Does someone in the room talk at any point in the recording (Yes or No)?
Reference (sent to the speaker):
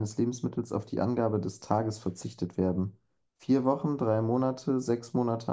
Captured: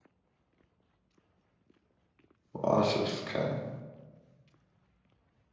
Yes